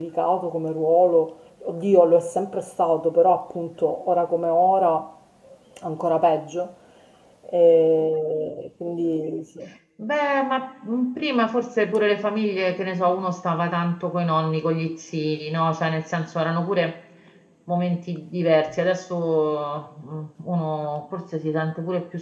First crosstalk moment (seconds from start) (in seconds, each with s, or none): none